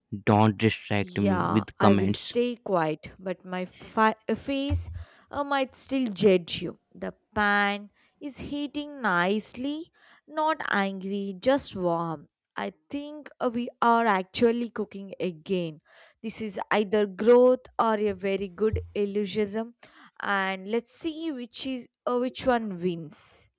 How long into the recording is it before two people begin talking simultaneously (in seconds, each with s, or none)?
1.0 s